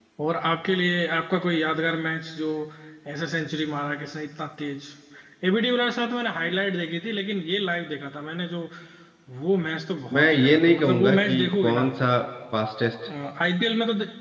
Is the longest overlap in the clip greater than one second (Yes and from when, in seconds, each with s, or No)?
Yes, from 10.1 s